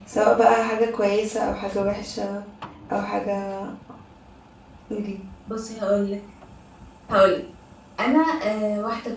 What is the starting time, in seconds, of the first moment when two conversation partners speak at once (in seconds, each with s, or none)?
none